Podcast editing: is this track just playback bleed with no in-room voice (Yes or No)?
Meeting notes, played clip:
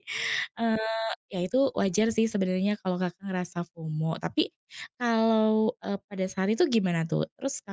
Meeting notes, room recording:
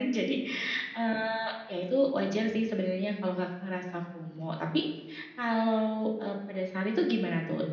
Yes